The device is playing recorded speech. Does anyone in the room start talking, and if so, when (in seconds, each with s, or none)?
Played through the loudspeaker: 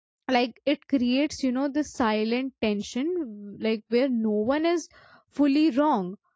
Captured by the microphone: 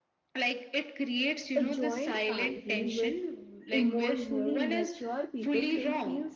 1.5 s